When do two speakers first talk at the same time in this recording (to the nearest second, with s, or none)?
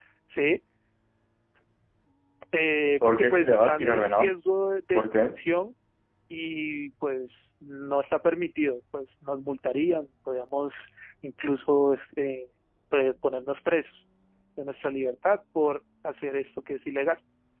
3 s